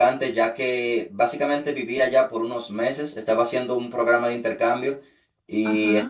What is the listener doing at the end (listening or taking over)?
listening